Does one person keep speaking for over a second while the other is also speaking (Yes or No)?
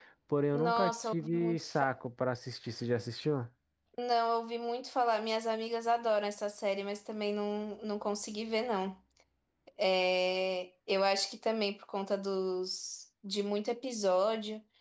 Yes